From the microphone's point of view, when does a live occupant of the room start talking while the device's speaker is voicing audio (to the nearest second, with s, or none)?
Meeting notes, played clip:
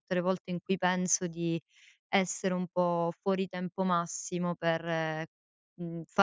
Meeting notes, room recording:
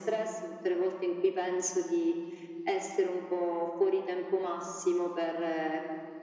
none